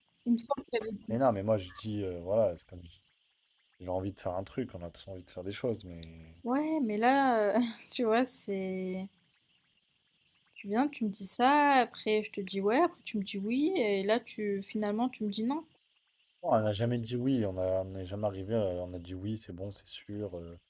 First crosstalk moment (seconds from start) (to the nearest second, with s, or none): none